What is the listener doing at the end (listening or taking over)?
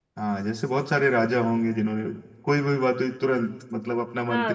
taking over